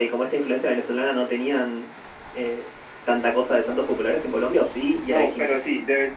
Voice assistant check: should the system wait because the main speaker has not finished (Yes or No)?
No